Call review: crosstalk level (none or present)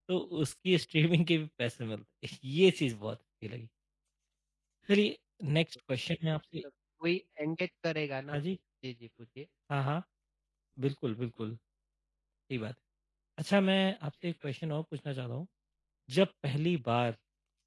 none